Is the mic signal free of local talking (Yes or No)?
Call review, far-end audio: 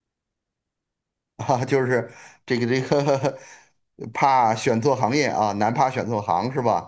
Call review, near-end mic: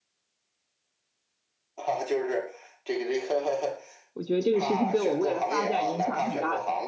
No